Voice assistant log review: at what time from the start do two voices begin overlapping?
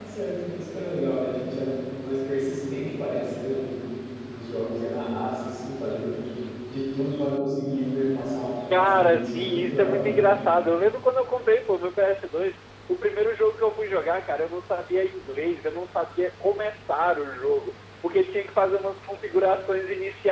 8.7 s

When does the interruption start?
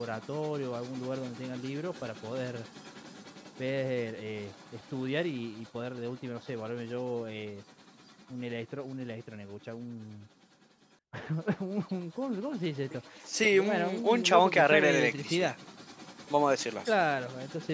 13.5 s

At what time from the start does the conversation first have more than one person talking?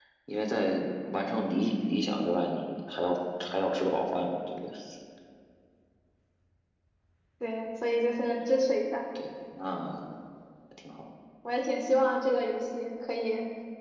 none

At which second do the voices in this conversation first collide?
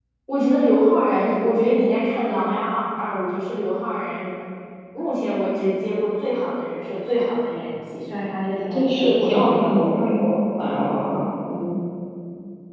8.7 s

